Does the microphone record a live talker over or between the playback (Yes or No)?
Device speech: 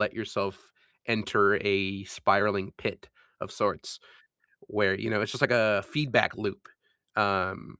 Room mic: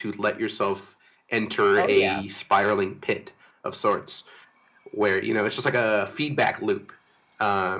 Yes